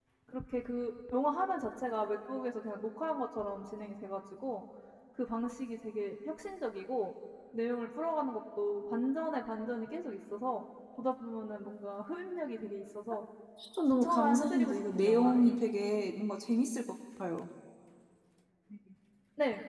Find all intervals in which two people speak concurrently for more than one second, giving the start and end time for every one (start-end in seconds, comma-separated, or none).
14.0-15.6